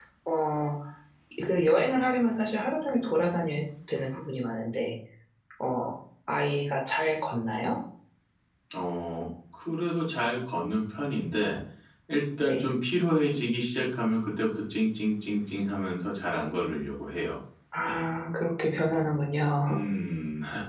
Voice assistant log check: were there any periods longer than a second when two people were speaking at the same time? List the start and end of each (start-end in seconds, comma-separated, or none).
none